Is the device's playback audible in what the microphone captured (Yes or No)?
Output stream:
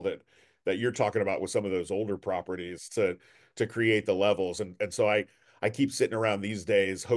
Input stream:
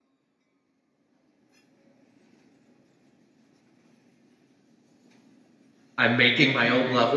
No